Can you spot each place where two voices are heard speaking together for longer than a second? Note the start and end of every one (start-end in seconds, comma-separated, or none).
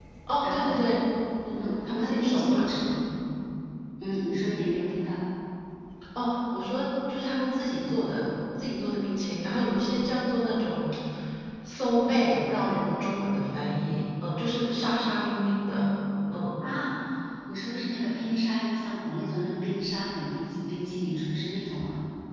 1.6-2.9